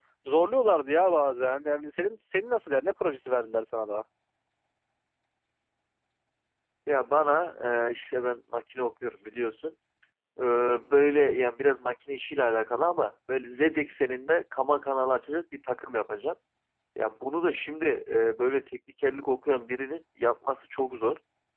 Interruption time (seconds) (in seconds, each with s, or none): none